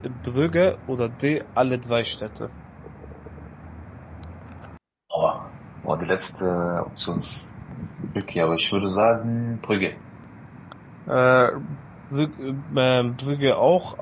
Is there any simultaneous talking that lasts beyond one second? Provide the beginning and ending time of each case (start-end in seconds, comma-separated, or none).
none